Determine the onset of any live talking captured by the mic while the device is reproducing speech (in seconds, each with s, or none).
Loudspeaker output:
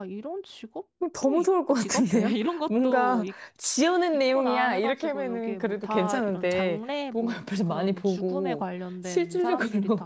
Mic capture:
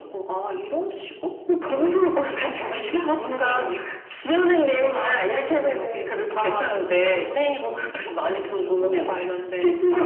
none